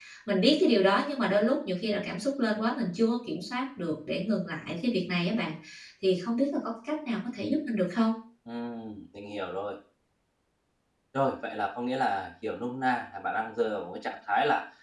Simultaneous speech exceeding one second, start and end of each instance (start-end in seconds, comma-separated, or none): none